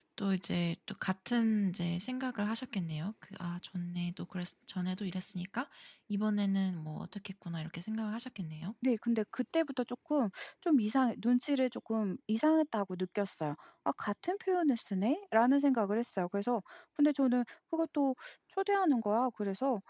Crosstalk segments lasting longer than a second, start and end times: none

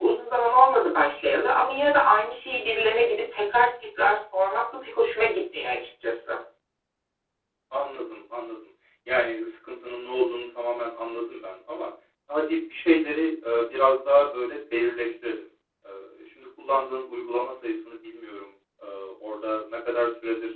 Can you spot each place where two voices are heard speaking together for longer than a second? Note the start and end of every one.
none

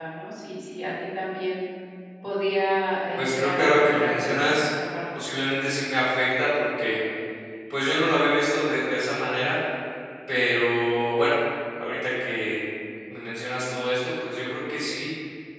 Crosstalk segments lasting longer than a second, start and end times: 3.2-4.7

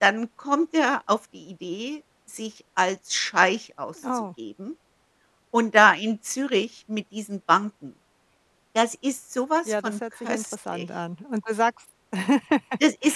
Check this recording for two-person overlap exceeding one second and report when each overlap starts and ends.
9.7-10.9

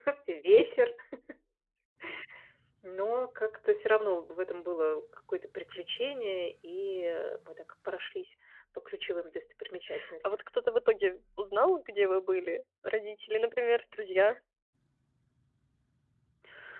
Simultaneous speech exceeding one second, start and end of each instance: none

